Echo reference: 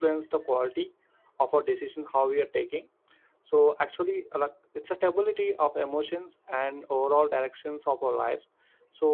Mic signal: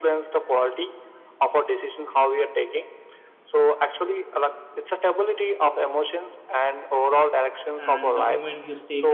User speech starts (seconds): 8 s

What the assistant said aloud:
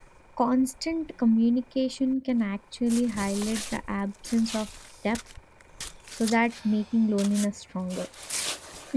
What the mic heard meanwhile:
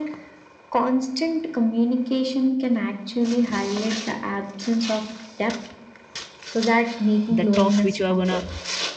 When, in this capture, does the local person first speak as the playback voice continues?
7 s

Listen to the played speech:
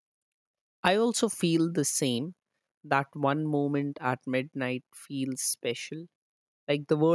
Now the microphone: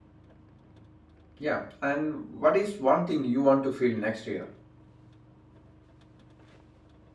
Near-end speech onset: 1 s

